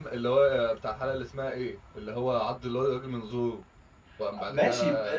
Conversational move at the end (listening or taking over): taking over